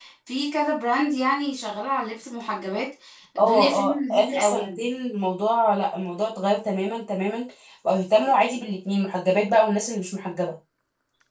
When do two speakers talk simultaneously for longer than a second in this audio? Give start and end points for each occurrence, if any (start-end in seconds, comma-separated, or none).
3.4-4.8